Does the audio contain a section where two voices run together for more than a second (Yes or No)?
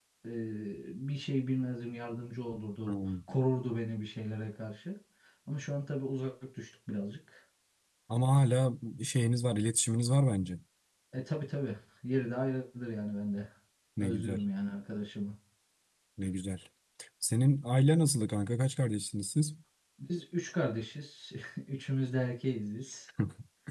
No